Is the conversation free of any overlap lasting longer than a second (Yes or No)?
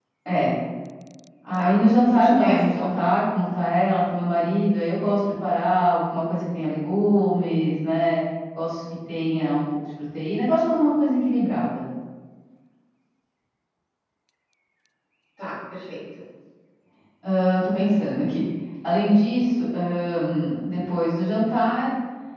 No